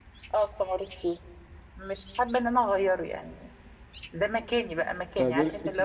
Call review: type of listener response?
taking over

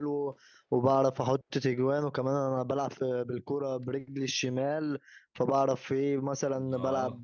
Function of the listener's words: listening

